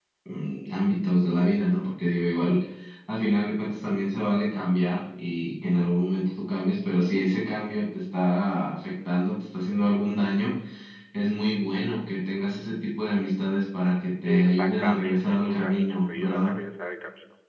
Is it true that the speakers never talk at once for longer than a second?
No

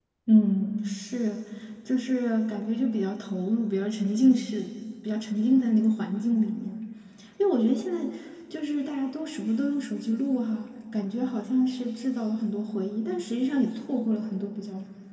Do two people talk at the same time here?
No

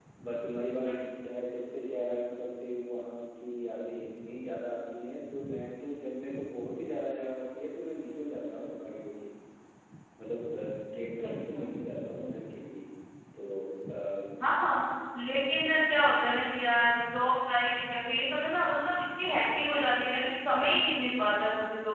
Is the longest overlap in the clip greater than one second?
No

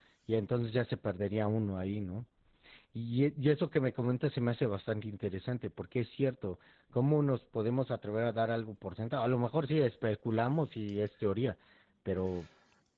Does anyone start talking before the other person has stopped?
No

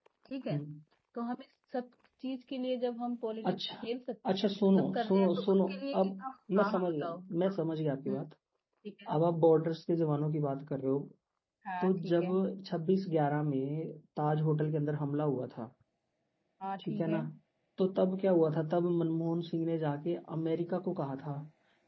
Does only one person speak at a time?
No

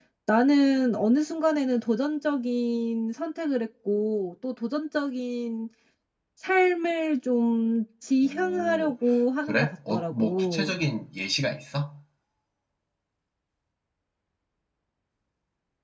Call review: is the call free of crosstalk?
No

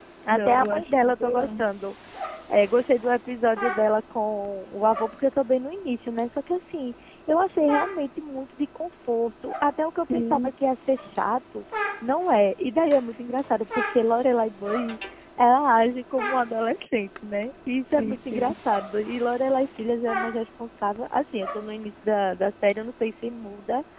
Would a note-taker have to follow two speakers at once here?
Yes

